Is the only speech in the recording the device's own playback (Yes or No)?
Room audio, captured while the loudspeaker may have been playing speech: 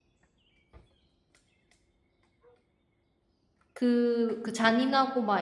No